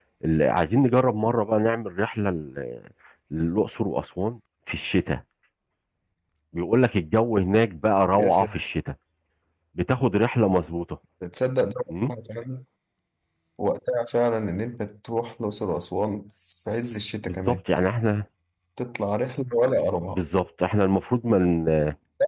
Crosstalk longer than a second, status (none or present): none